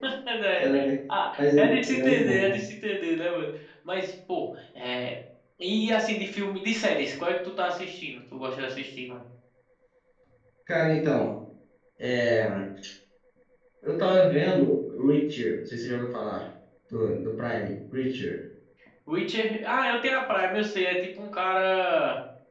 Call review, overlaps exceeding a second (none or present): present